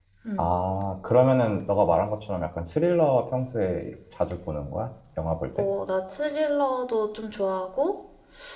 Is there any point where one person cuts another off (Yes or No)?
No